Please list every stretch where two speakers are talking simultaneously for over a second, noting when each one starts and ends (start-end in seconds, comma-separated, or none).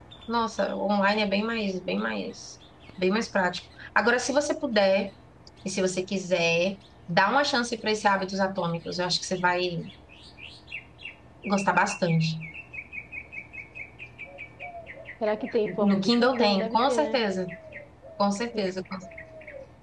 15.6-17.2